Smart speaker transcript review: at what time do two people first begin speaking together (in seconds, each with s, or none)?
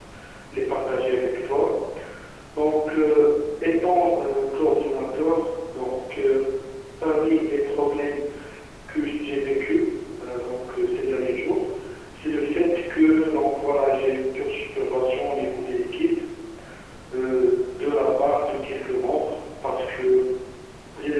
none